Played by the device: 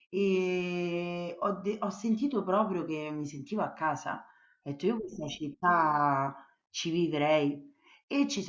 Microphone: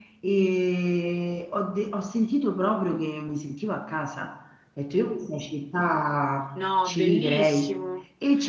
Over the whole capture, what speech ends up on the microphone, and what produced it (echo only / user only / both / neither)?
both